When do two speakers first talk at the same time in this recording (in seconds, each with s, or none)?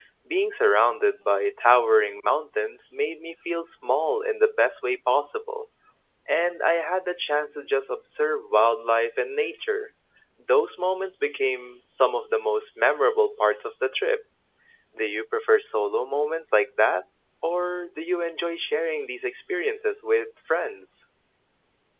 none